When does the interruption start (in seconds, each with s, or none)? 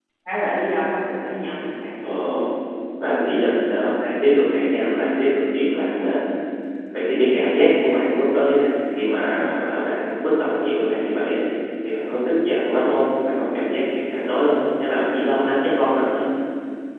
none